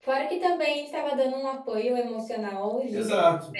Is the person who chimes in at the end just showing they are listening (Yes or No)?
No